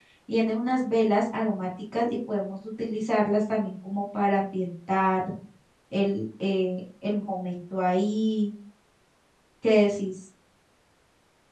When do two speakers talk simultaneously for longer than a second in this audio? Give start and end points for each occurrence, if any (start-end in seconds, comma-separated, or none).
none